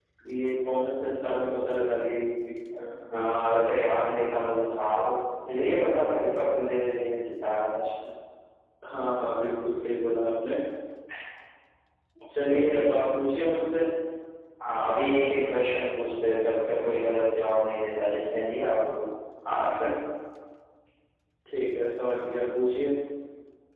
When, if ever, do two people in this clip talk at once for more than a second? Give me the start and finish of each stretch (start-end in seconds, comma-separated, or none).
none